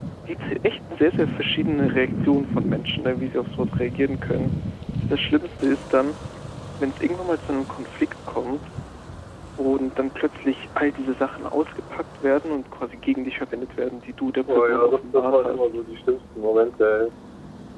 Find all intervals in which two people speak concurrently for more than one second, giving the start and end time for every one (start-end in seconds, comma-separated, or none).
14.5-15.7